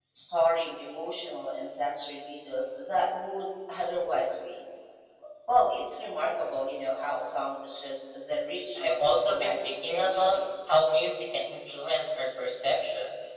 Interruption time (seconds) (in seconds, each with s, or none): 8.8 s